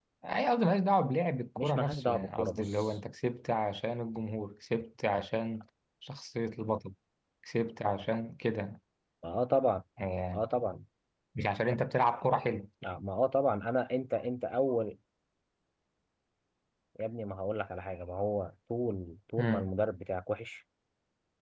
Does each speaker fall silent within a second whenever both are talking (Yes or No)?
No